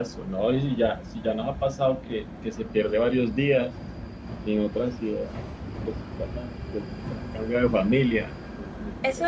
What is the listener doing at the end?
taking over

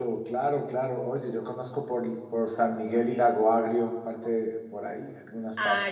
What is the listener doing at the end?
taking over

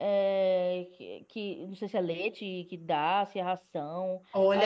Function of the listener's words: taking over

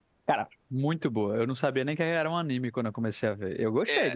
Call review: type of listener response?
taking over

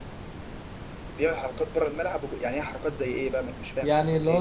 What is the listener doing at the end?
taking over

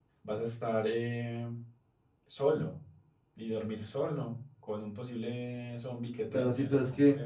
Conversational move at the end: taking over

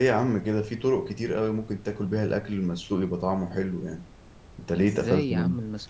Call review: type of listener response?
taking over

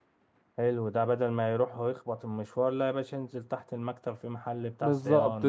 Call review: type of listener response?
taking over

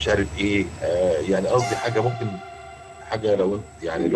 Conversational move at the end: listening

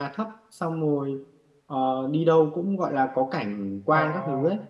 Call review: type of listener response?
listening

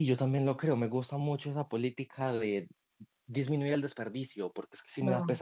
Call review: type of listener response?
listening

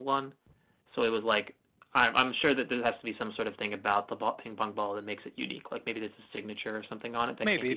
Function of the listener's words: taking over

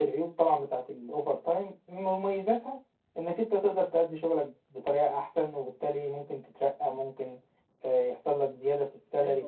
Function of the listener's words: taking over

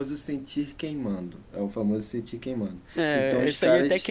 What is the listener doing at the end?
taking over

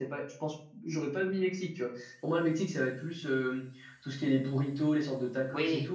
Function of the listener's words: listening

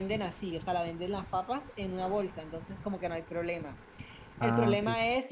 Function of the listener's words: listening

